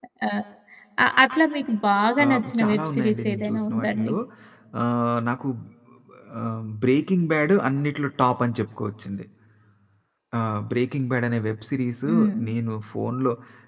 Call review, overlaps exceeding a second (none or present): present